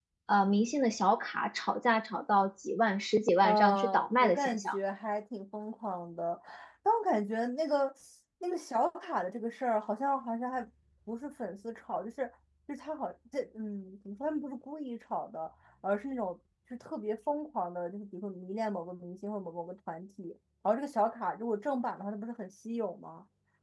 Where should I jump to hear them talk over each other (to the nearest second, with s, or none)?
3 s